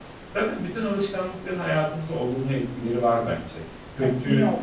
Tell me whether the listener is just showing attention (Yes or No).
No